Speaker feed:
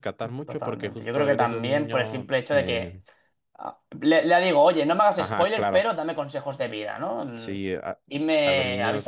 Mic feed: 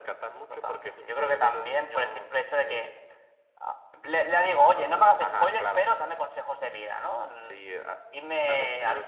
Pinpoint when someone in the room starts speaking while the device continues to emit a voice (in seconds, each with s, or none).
4.7 s